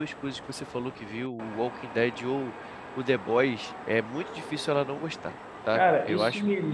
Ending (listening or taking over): taking over